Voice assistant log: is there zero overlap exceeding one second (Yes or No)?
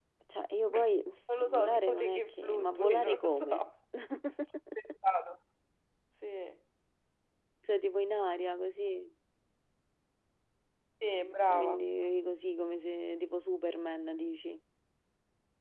No